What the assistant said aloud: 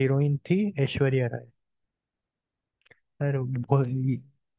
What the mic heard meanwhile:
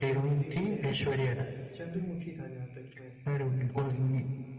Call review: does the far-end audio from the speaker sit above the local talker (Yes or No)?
Yes